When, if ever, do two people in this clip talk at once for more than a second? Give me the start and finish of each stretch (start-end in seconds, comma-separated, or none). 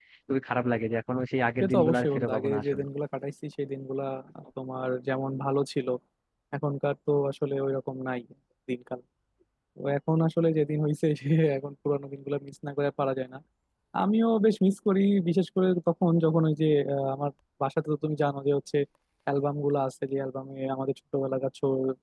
1.6-2.8